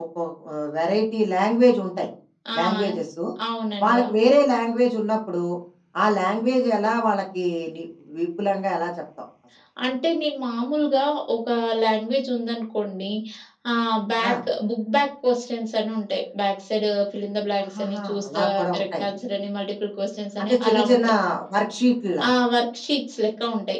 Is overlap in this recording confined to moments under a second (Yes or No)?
No